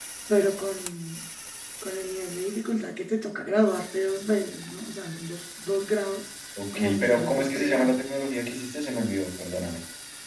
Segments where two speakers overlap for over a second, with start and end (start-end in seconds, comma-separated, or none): 6.8-8.0